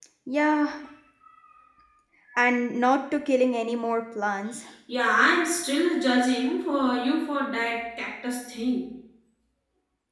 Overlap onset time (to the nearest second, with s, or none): none